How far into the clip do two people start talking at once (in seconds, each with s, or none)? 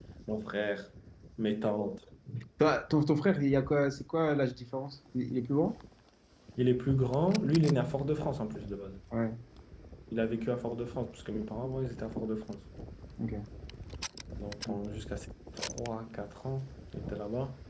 none